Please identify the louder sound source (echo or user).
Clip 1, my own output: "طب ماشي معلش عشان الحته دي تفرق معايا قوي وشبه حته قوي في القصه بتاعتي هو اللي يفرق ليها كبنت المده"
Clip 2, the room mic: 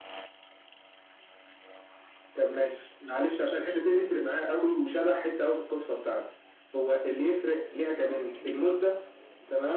echo